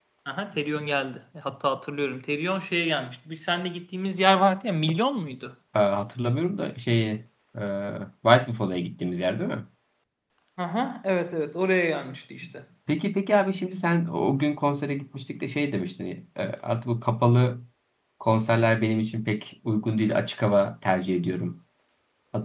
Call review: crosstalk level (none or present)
none